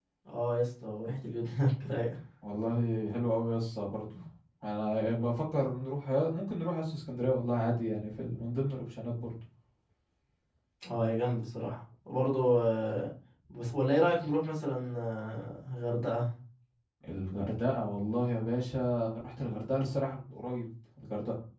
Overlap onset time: none

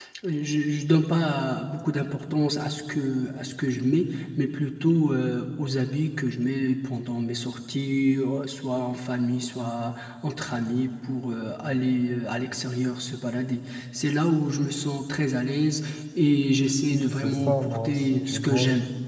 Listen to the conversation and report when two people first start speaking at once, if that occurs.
16.9 s

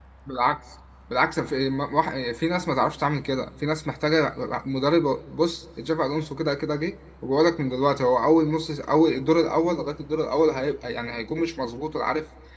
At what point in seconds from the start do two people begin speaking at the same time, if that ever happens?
none

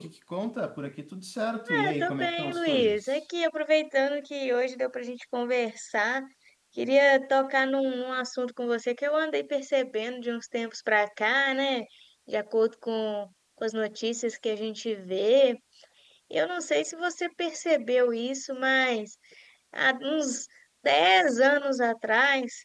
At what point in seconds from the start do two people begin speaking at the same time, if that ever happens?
1.7 s

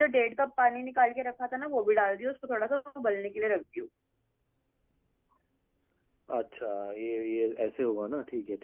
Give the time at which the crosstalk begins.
none

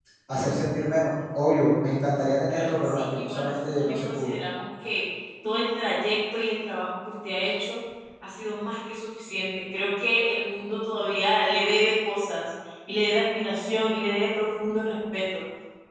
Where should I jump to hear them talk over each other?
2.5 s

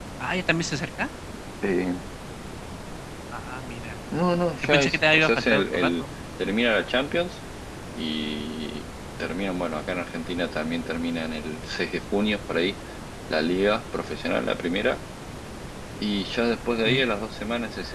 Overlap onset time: 4.6 s

